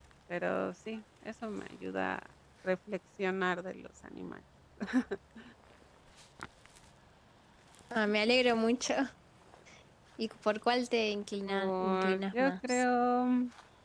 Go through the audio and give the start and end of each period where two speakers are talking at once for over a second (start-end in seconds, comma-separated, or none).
11.5-12.8